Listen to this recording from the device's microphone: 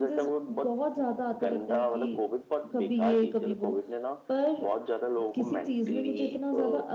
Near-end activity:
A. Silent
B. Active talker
B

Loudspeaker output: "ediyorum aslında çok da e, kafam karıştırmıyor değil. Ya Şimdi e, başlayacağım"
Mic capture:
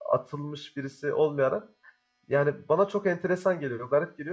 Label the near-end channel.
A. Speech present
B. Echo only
A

